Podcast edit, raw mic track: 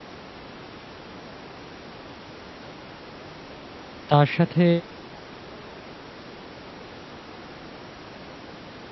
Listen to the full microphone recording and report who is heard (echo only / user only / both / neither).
user only